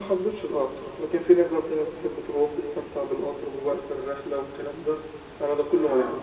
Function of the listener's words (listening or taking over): listening